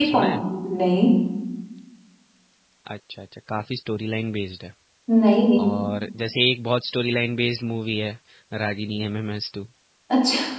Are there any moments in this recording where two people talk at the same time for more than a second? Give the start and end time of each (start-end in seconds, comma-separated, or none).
none